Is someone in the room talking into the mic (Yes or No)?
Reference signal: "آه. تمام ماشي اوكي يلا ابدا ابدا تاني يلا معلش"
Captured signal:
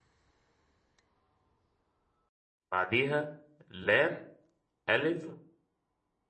Yes